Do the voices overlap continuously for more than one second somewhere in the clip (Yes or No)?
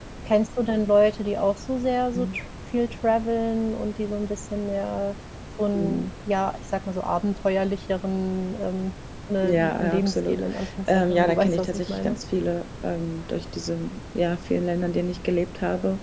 Yes